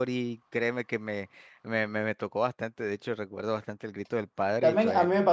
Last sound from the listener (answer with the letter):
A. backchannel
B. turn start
B